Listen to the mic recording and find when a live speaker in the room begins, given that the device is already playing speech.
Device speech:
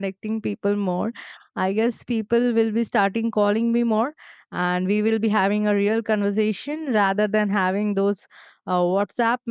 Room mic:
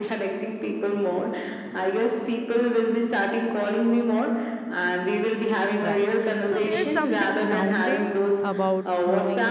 5.8 s

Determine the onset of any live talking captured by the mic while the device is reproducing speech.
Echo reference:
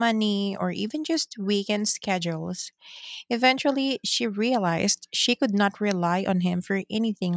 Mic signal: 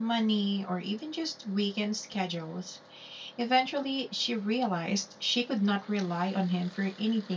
none

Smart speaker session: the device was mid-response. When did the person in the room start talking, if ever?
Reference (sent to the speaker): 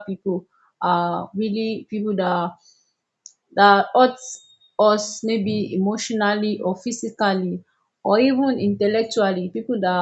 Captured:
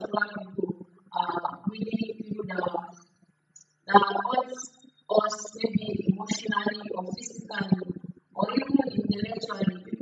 none

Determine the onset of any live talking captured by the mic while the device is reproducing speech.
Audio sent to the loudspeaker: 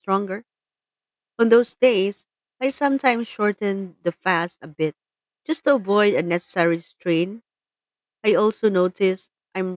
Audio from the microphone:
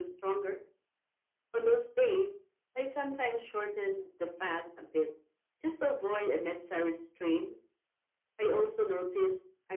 none

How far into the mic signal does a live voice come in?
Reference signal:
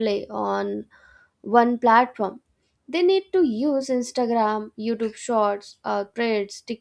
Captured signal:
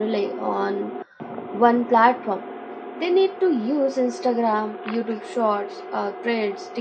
none

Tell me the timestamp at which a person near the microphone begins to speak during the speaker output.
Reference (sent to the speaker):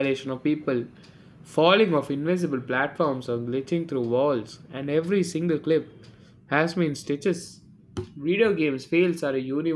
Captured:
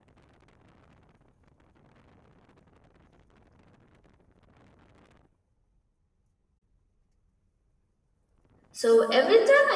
8.7 s

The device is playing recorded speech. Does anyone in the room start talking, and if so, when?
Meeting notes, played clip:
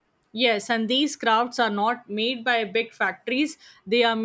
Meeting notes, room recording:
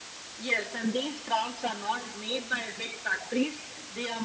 none

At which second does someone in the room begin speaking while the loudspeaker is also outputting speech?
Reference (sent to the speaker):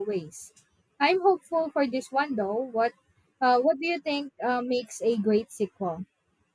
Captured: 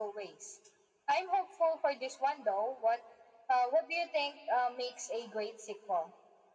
none

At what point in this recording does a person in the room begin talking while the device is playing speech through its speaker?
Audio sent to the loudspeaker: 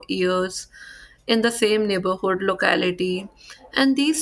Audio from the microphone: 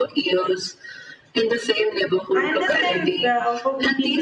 2.3 s

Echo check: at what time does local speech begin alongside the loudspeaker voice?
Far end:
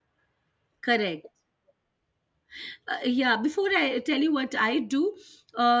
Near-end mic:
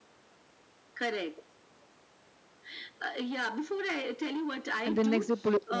4.8 s

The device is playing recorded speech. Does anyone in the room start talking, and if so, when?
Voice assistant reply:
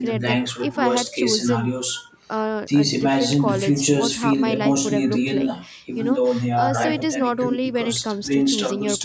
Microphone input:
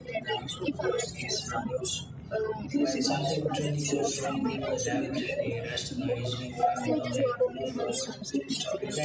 2.8 s

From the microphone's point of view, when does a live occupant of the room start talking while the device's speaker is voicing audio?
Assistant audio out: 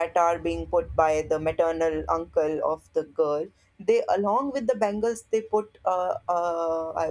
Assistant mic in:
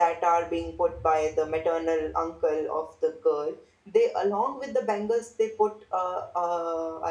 none

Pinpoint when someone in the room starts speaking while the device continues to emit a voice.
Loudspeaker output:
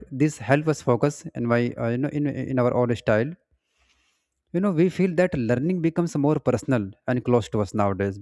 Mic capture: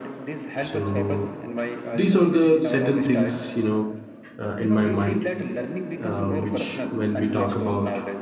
0.6 s

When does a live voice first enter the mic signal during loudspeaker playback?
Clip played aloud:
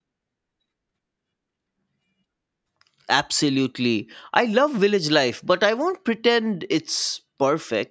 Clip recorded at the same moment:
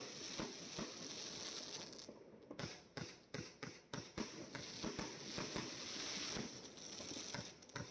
none

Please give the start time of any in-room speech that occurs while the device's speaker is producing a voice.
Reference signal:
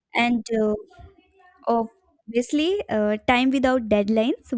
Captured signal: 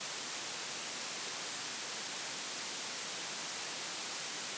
none

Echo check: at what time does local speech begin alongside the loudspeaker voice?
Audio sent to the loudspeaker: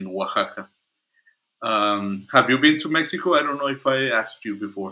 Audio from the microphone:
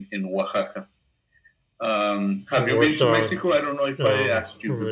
2.5 s

